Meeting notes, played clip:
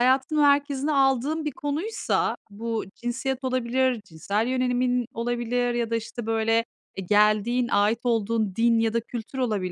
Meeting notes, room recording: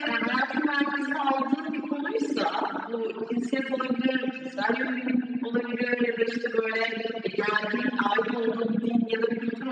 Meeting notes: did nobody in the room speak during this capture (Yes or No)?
Yes